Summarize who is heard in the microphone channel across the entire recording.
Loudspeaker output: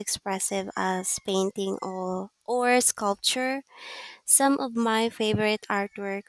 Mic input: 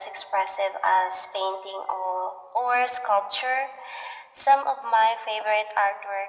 echo only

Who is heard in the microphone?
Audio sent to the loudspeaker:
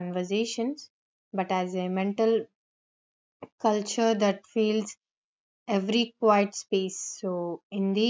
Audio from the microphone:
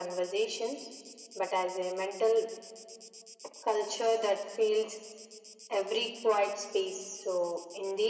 echo only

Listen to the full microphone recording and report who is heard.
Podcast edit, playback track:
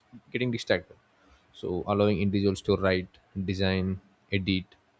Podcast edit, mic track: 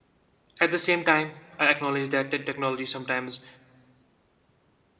user only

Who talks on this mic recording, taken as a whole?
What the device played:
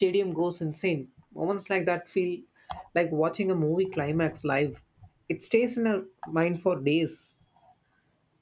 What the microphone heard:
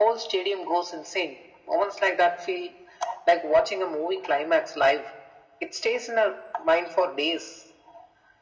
echo only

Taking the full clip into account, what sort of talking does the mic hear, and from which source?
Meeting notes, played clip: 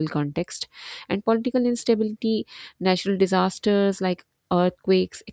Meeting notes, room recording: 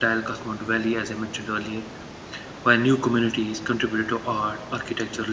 user only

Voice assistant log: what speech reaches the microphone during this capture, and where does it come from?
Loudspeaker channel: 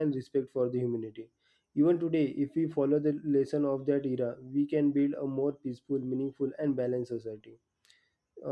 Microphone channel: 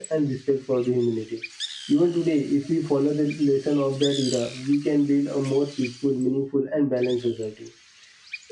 echo only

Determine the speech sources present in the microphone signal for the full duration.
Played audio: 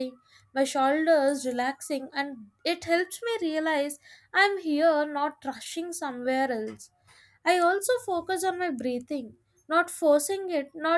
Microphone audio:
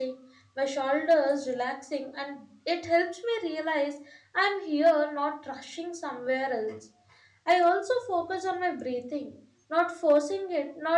echo only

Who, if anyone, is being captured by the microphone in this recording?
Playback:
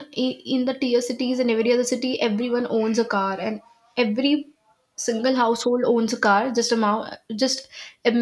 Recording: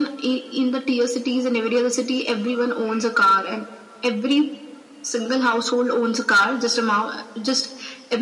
echo only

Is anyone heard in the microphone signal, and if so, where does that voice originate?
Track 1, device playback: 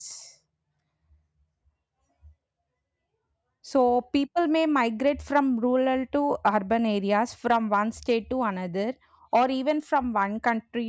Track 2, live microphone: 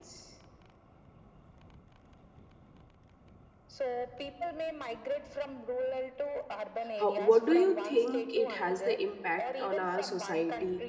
both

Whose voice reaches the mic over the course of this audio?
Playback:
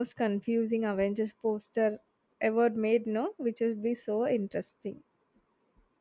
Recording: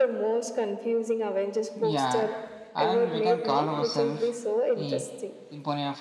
both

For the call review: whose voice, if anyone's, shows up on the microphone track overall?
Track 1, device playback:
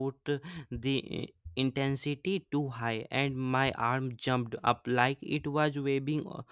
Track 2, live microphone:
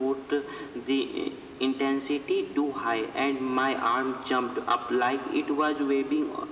echo only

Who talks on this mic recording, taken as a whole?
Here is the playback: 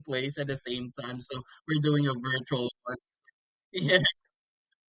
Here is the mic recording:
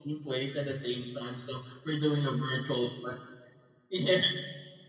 echo only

